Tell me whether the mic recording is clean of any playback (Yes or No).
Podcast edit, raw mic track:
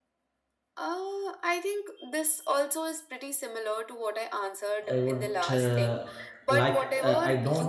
No